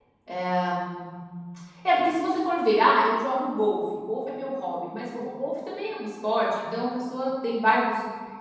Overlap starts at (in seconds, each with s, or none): none